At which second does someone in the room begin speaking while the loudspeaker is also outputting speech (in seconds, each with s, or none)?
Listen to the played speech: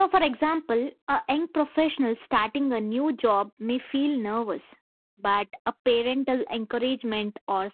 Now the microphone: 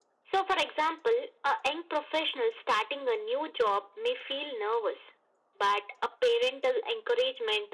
none